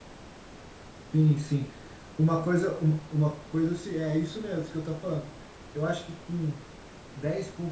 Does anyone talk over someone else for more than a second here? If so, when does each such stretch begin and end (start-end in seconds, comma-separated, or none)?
none